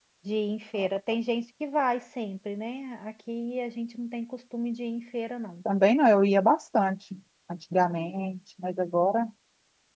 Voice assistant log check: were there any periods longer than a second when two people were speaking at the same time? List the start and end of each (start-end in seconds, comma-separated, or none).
none